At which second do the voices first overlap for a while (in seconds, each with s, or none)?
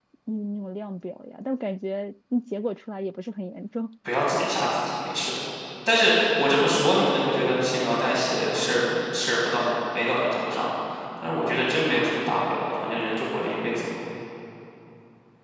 none